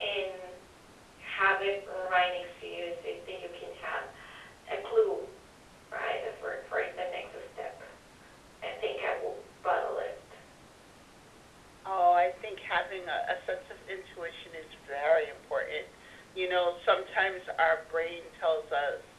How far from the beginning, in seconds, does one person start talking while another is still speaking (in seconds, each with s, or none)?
none